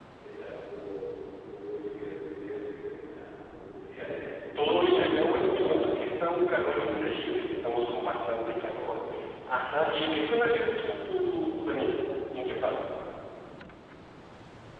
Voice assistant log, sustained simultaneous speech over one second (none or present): present